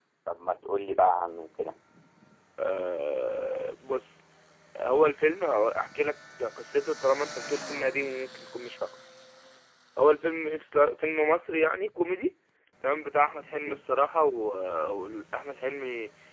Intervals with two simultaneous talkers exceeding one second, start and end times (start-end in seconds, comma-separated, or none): none